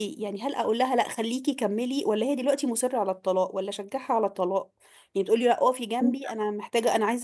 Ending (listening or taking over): listening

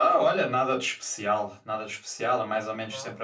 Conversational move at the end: listening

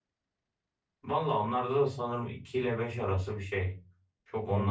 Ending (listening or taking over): taking over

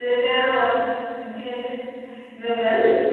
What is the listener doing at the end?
listening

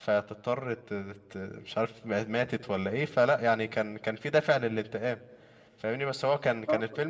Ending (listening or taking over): listening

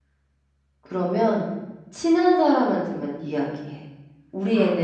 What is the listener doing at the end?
listening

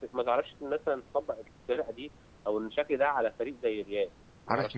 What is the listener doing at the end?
taking over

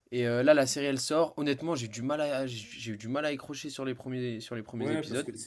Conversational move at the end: taking over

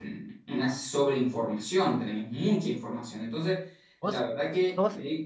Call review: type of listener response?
listening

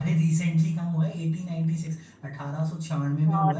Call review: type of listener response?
taking over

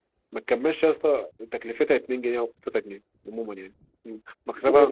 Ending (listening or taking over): taking over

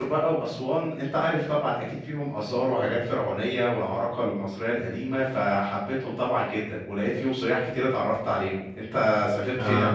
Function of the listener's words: taking over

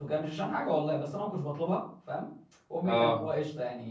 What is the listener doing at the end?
listening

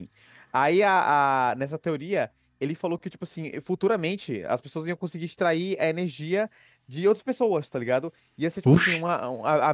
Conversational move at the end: listening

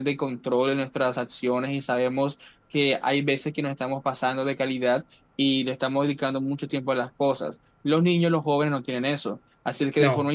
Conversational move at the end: listening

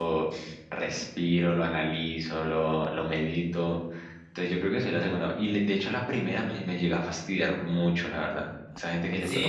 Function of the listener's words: taking over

